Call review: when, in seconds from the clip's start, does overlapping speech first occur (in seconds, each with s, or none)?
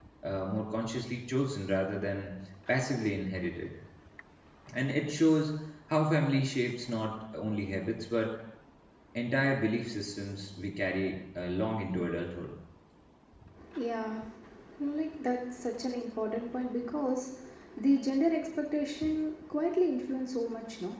none